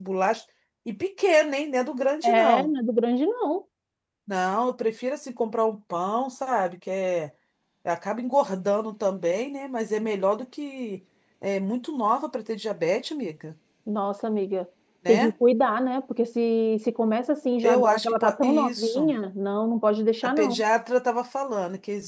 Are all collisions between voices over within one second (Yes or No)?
No